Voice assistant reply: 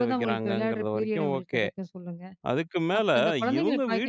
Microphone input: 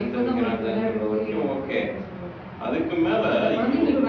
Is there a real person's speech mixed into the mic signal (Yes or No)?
No